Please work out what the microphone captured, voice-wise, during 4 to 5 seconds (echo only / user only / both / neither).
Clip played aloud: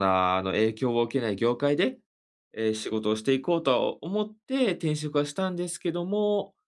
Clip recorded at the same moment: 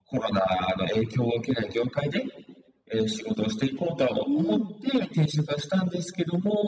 both